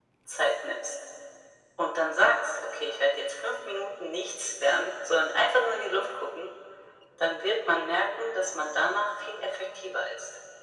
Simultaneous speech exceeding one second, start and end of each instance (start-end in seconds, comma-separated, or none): none